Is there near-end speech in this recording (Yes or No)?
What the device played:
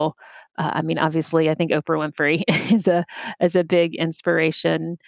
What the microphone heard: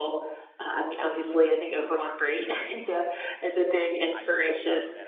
Yes